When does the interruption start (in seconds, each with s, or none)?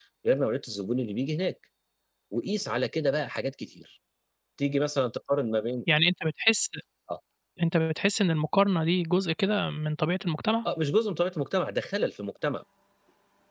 none